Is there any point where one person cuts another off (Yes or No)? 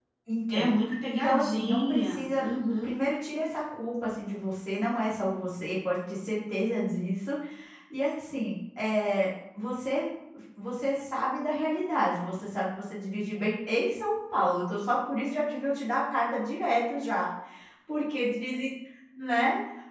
Yes